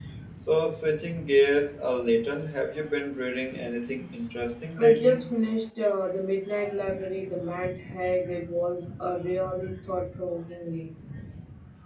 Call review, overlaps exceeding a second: none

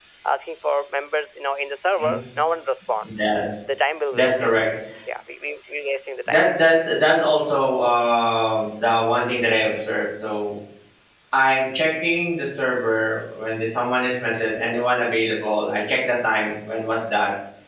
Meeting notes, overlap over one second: none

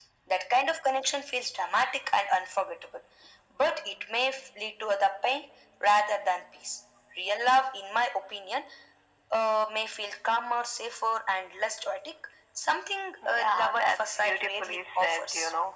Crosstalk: present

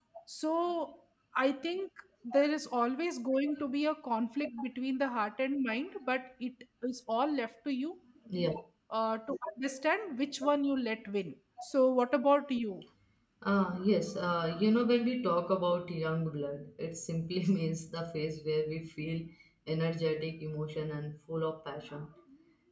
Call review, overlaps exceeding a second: none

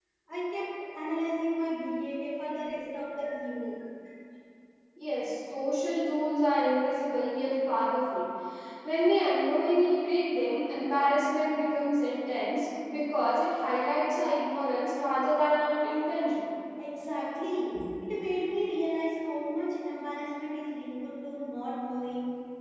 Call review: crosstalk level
none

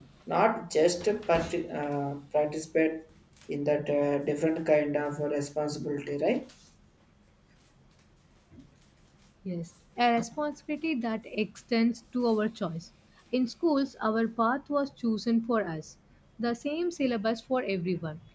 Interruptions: none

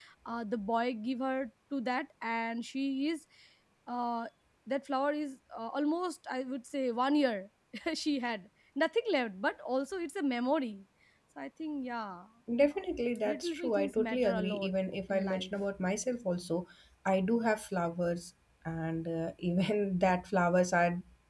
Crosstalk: present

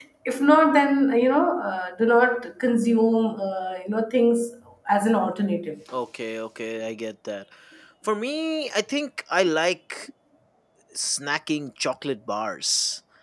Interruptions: none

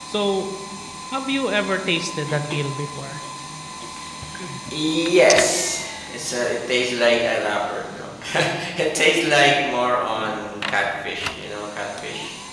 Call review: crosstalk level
none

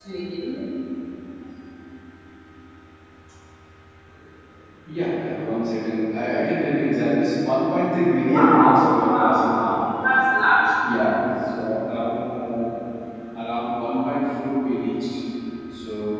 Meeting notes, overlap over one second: present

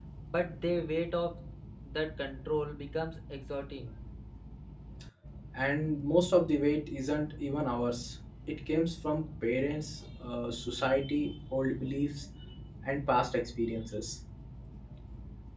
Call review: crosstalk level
none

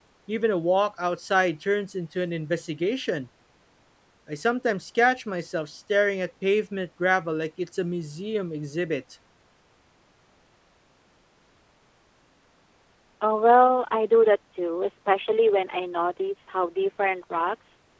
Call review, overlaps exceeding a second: none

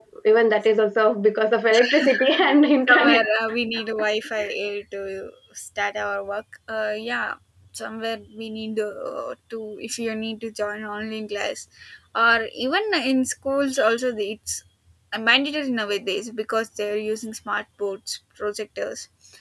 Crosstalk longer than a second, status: none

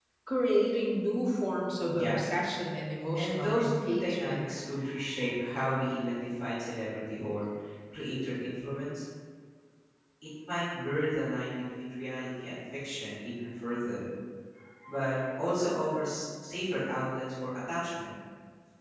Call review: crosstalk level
present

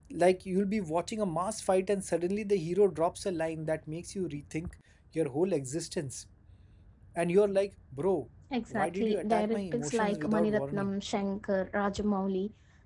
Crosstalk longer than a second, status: present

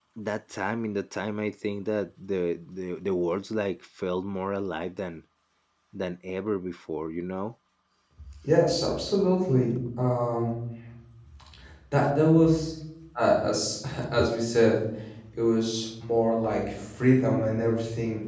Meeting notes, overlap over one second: none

